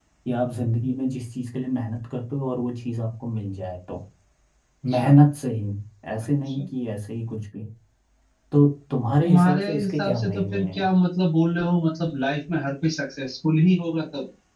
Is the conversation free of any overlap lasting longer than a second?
No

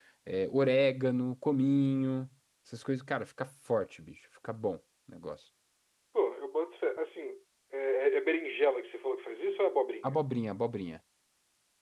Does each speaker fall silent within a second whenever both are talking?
Yes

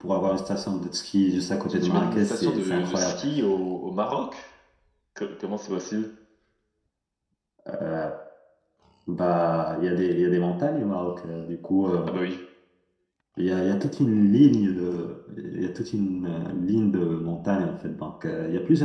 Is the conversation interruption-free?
No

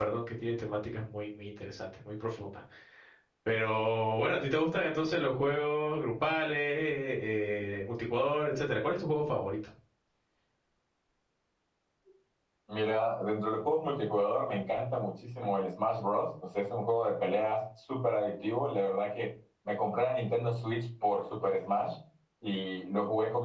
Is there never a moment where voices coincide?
Yes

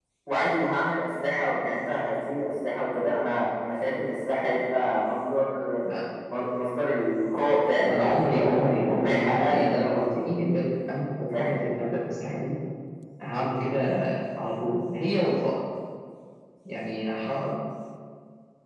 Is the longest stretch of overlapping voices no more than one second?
No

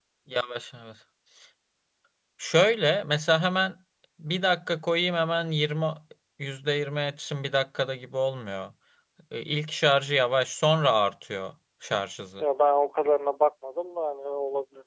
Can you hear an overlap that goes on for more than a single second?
No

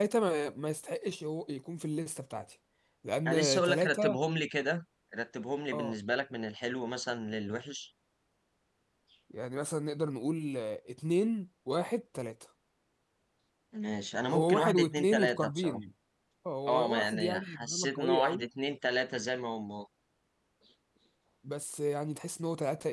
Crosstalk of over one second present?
Yes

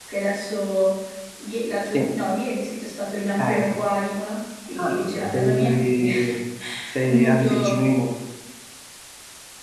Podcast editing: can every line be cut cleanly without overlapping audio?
No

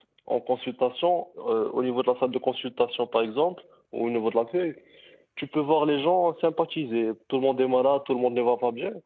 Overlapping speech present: No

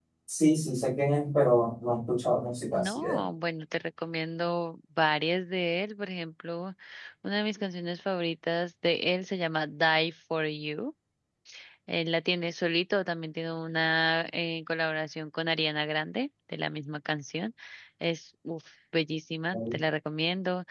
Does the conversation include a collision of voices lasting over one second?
No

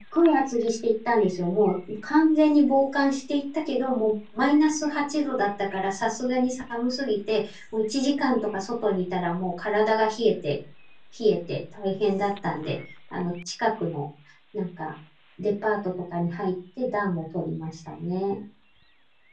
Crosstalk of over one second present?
No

